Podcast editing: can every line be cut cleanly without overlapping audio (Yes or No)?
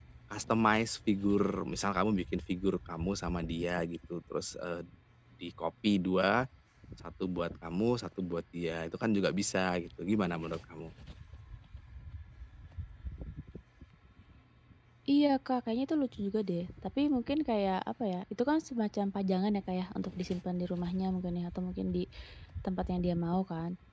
Yes